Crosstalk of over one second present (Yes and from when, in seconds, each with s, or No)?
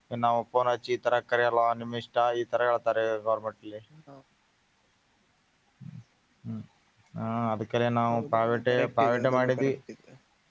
Yes, from 8.1 s